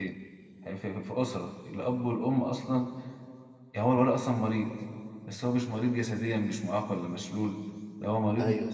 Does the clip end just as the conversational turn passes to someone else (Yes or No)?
No